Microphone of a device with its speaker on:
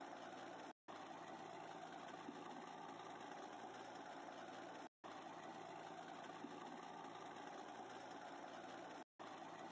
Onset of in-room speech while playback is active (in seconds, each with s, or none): none